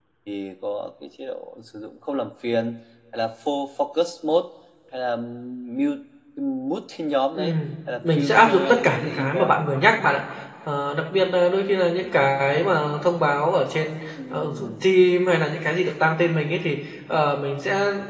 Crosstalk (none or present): present